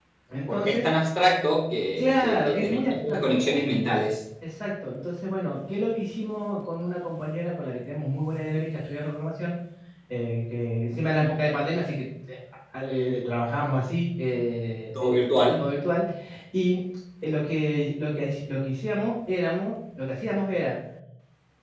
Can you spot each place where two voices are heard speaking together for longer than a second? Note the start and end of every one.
2.0-3.2

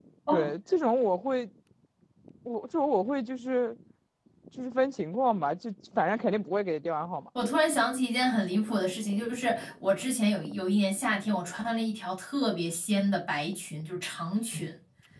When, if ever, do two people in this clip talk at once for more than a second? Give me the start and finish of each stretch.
none

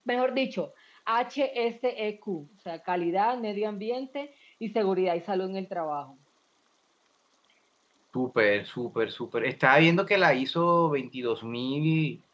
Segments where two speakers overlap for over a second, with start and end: none

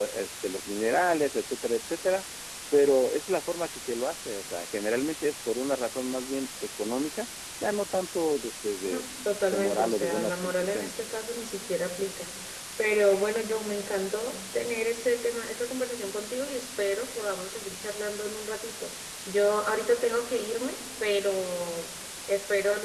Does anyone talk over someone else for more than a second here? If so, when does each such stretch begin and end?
9.5-10.9

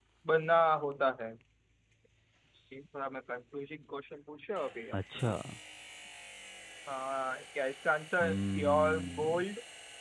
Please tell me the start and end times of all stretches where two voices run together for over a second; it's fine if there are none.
8.2-9.4

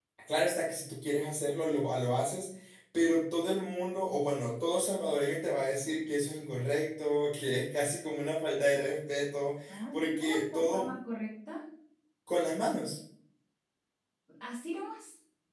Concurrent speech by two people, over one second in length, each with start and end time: 9.7-10.9

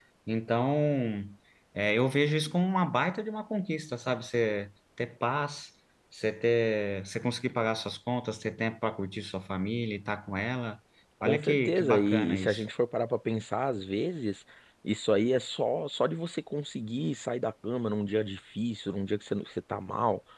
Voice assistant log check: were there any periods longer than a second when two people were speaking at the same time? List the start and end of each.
11.2-12.6

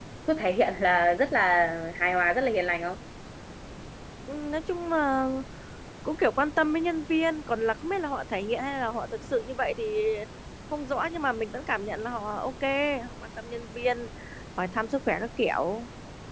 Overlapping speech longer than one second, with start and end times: none

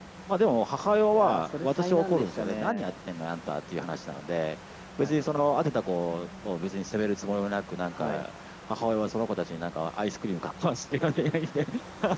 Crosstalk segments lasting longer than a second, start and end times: 1.1-2.9

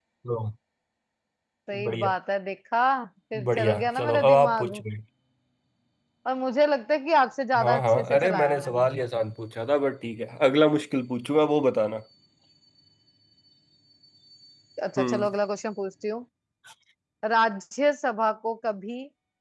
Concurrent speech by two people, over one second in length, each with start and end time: 3.4-4.7, 7.5-8.8

